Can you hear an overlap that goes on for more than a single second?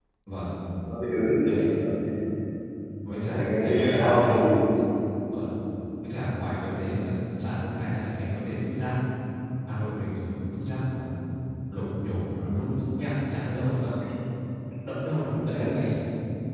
Yes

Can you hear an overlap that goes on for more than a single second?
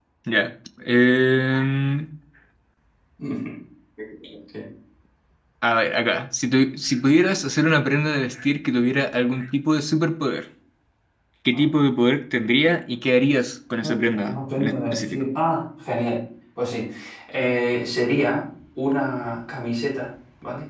Yes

